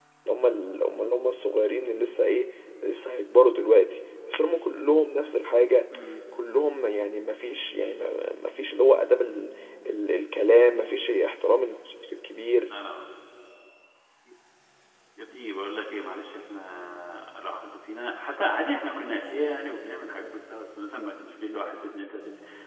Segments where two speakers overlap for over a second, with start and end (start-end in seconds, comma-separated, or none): none